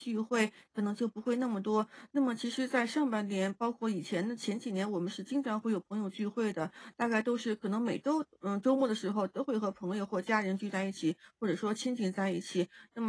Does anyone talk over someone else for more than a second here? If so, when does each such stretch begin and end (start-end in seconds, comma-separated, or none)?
none